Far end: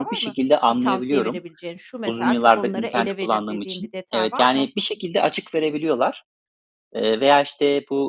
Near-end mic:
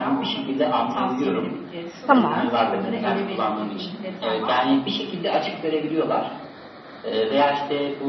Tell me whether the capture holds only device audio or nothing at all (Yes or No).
No